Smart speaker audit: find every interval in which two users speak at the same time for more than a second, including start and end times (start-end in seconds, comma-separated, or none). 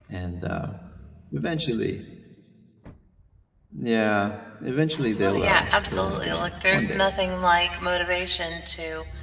5.2-7.0